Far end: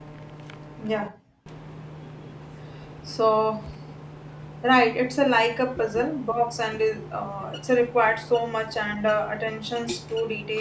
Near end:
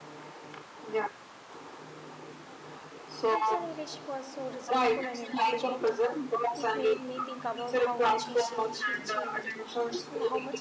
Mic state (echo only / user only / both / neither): both